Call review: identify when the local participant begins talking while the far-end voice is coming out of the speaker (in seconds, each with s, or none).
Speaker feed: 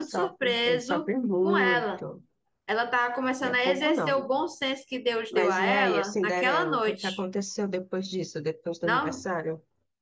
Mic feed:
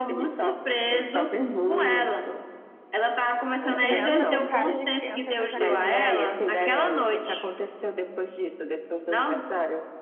3.6 s